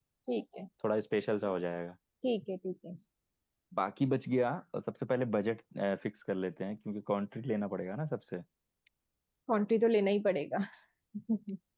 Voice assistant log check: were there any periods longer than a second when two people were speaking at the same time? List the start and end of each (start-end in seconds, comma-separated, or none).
none